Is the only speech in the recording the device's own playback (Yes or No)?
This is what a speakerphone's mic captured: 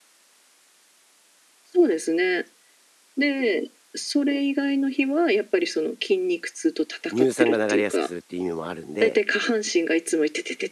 No